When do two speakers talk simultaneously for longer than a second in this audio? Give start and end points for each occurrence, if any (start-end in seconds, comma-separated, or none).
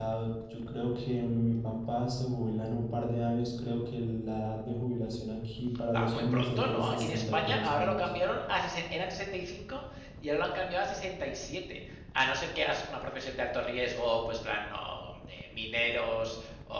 5.9-8.1